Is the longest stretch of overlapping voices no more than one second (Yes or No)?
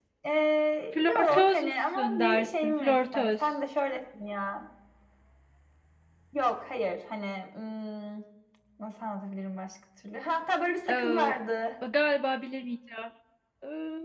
No